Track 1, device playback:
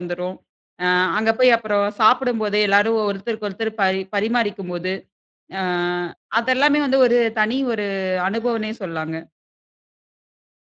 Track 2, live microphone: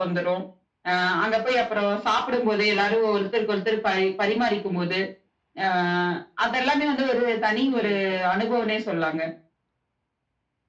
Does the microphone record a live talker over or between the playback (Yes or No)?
Yes